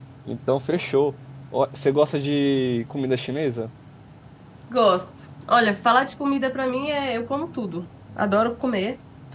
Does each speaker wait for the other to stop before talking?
Yes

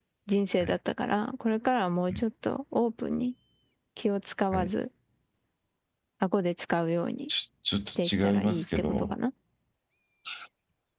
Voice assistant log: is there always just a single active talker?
No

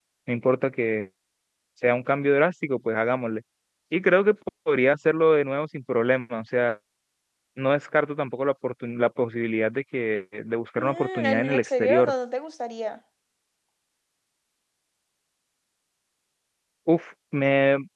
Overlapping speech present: Yes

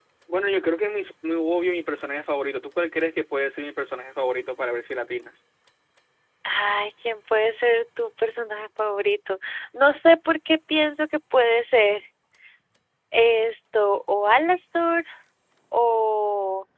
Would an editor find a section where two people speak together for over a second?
No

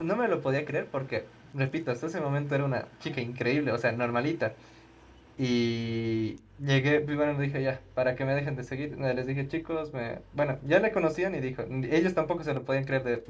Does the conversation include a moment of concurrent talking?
No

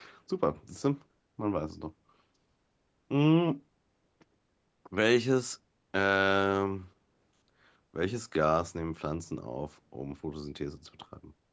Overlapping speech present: No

